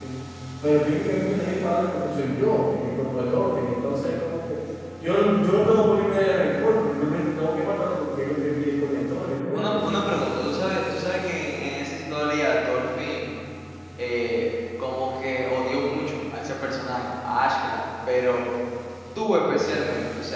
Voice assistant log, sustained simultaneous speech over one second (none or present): none